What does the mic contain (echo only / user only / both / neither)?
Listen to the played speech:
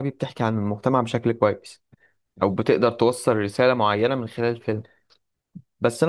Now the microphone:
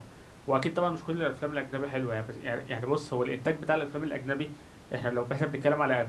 user only